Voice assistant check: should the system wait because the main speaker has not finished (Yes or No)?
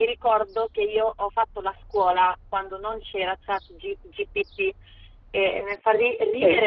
No